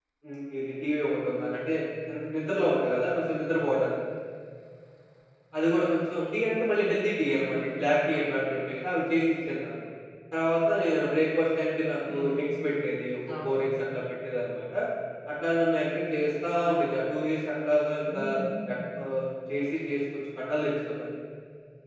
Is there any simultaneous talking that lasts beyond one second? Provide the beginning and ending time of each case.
none

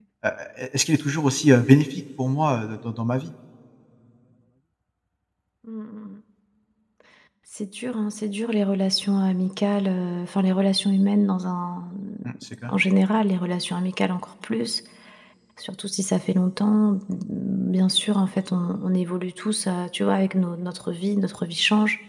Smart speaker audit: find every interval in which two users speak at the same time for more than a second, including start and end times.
none

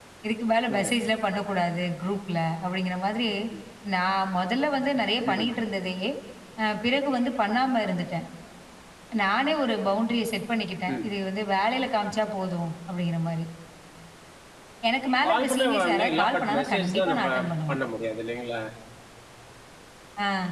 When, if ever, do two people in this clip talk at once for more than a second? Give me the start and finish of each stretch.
15.2-17.3

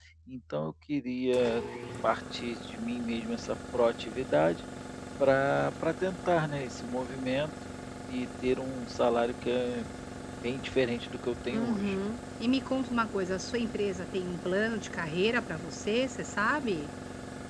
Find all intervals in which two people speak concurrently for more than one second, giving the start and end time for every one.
none

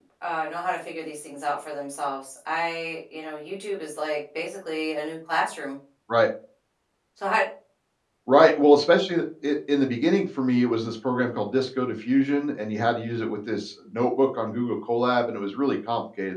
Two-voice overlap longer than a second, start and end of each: none

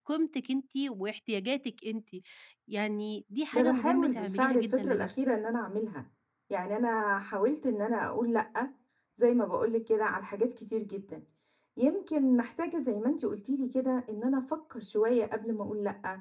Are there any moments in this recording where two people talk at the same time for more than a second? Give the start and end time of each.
3.5-5.1

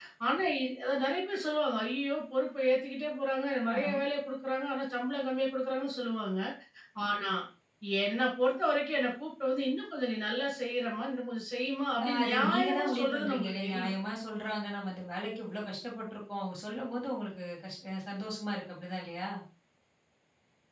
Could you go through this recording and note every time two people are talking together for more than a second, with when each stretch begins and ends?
12.0-13.9

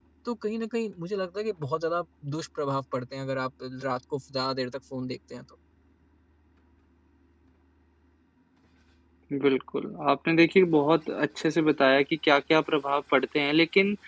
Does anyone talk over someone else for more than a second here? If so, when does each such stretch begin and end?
none

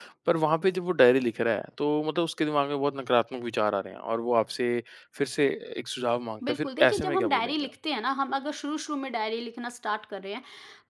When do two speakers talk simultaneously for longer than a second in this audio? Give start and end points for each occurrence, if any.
6.5-7.7

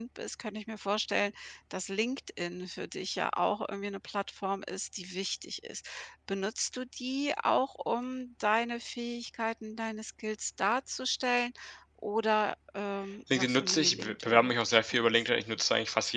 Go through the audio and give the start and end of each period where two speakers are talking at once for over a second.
13.3-15.4

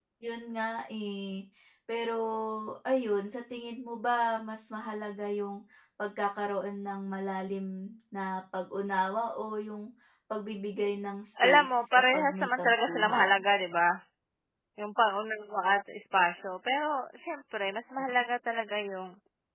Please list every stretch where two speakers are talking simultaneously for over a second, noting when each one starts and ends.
11.4-13.3

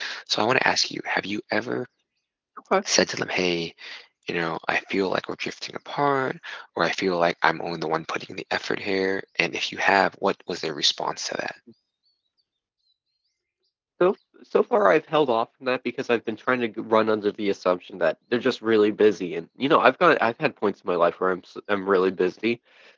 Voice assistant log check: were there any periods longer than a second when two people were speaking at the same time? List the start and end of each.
none

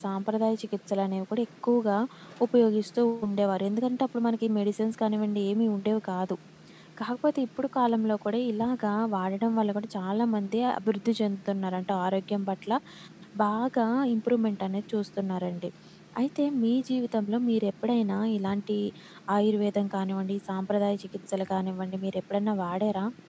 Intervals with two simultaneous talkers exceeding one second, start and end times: none

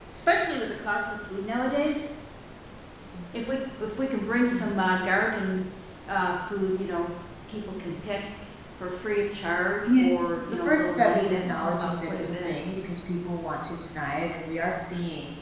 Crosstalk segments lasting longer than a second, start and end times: 10.7-12.5

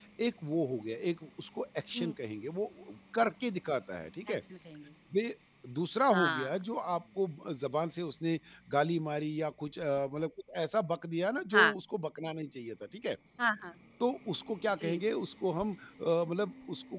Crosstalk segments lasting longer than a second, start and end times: none

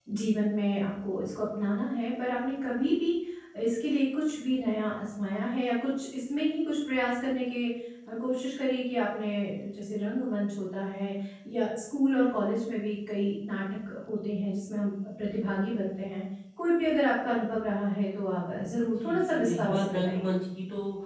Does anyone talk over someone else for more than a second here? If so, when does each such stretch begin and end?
19.0-20.3

